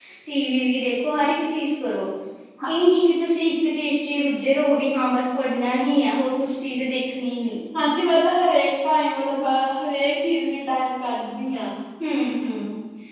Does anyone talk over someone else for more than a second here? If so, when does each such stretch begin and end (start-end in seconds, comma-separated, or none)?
none